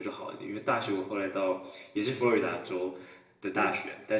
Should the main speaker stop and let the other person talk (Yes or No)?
No